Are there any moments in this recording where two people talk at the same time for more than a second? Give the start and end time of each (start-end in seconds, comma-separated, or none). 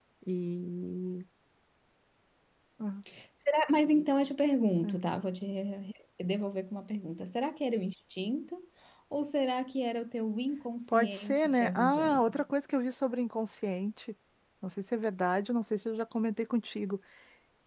10.9-12.3